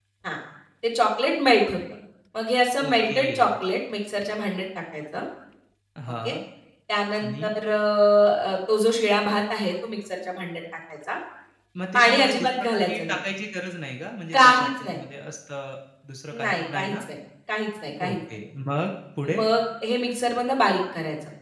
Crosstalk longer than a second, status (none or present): present